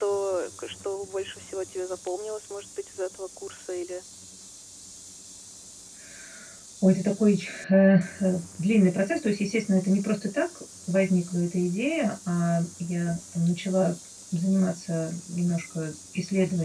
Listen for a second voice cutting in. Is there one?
No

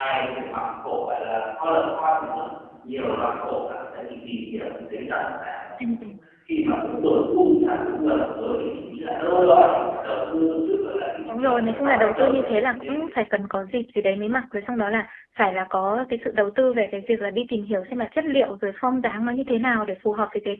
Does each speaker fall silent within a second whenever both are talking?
No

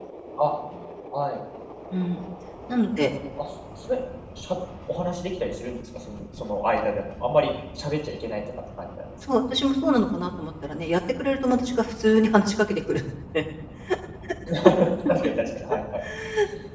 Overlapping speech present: No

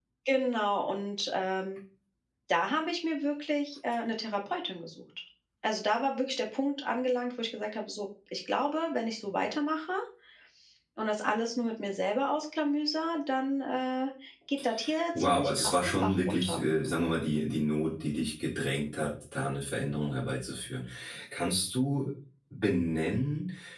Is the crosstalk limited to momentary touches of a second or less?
No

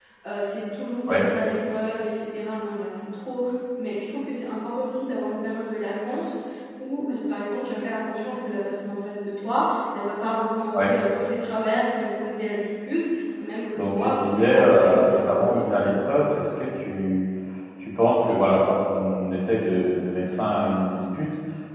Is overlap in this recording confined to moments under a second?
No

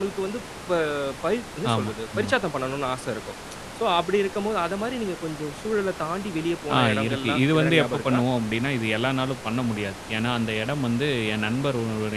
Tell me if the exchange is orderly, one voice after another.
No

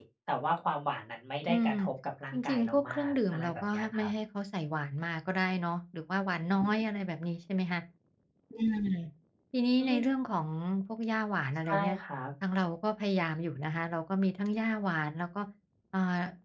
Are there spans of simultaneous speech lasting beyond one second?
Yes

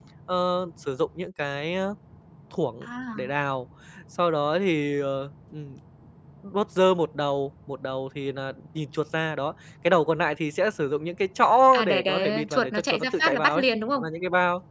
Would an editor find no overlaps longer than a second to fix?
No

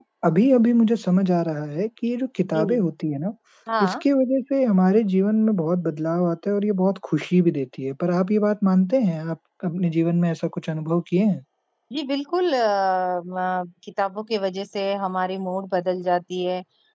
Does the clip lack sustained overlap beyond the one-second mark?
Yes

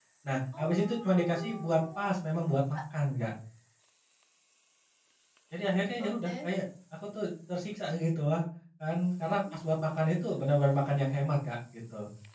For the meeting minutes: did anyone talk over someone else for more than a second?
Yes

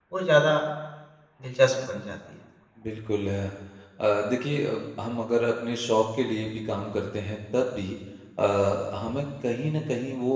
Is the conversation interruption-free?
Yes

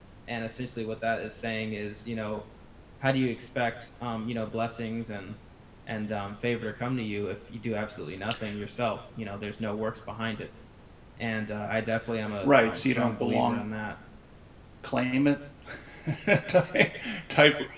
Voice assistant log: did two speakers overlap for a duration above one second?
Yes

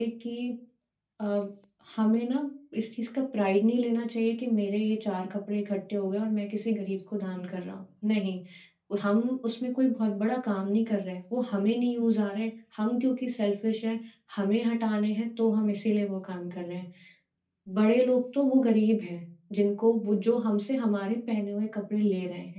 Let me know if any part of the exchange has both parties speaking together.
No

